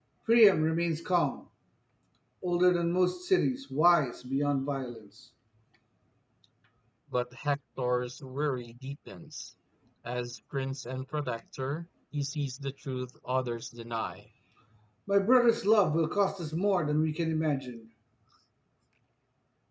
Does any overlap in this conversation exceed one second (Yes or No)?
No